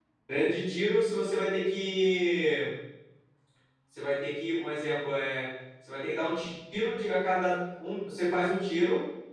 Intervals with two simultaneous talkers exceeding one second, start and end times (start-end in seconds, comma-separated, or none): none